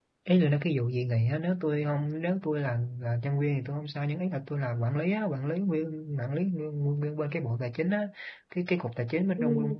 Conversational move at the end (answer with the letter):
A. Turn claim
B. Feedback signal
B